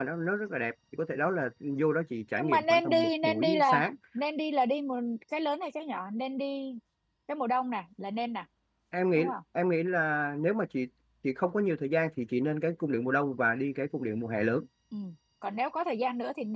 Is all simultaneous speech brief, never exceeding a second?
No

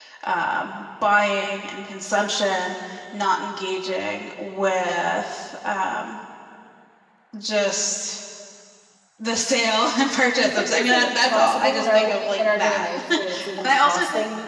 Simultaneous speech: Yes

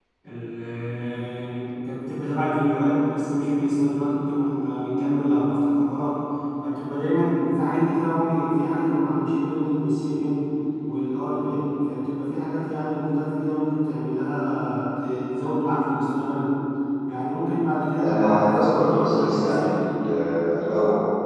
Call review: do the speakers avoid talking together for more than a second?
No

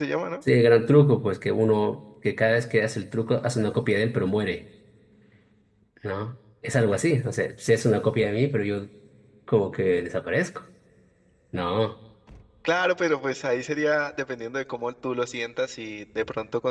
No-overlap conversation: Yes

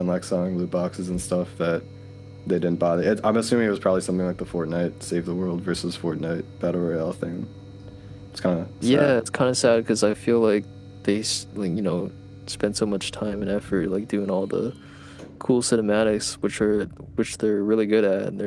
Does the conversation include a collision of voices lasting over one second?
No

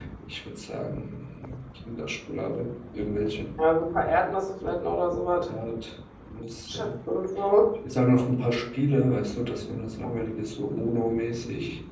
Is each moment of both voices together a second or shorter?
Yes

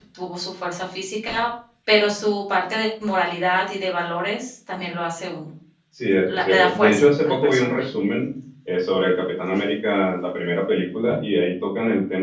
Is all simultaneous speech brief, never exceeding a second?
No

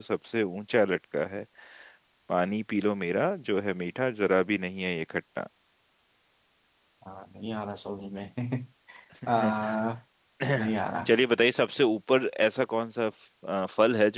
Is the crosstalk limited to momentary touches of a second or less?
Yes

